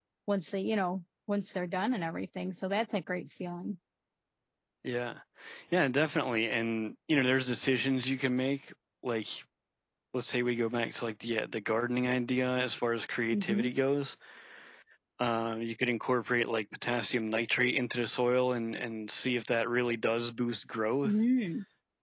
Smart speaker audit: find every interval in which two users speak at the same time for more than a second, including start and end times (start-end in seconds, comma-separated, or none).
none